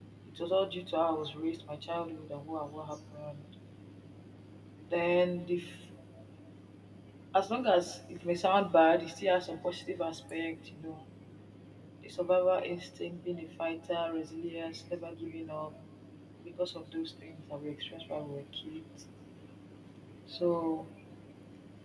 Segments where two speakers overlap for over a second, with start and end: none

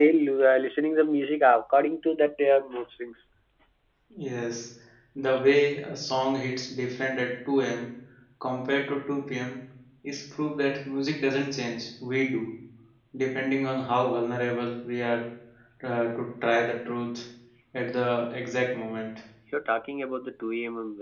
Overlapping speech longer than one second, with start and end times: none

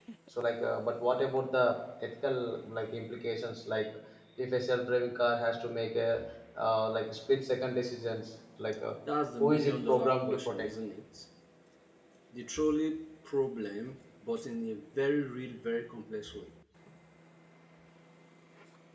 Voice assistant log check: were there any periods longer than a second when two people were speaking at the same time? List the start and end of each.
9.4-10.7

